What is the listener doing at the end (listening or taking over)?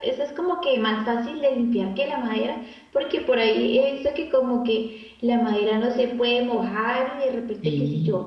listening